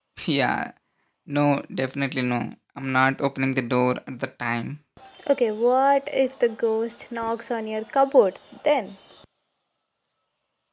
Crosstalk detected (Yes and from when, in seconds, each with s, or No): No